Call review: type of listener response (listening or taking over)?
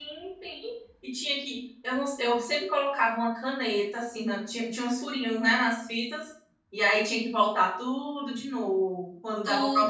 taking over